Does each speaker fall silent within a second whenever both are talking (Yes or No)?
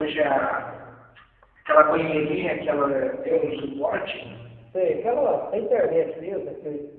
Yes